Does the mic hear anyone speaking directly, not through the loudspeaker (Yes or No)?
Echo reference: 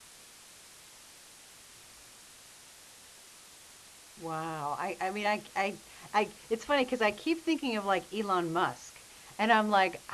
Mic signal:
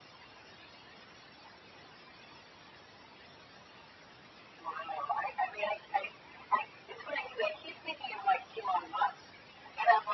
No